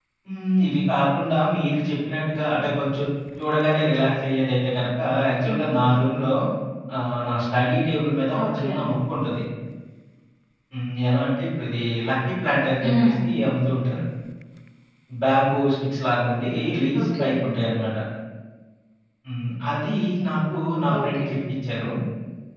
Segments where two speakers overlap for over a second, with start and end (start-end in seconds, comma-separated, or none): none